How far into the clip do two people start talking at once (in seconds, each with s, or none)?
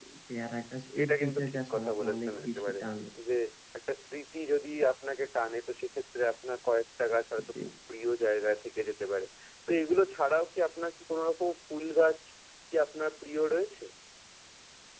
1.0 s